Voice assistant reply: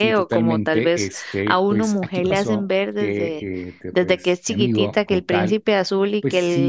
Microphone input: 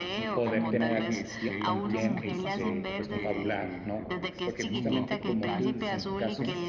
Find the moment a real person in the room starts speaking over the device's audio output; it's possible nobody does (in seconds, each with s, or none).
0.3 s